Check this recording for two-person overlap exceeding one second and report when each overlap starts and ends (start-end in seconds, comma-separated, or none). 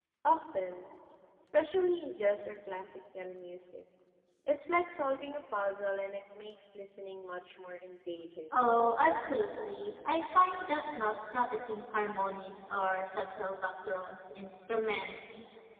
none